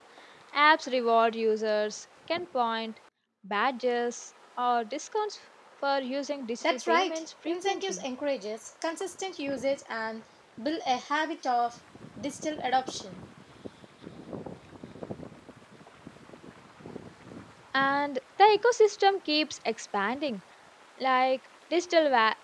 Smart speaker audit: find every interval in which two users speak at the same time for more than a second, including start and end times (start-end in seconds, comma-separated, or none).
6.6-8.0